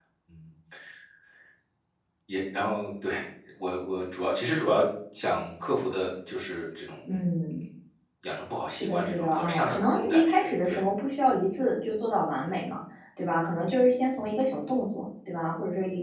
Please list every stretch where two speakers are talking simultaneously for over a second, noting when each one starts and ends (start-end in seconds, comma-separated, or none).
8.7-10.8